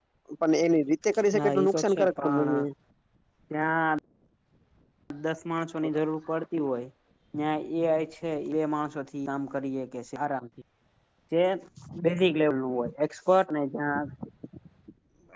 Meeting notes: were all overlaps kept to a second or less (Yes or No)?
No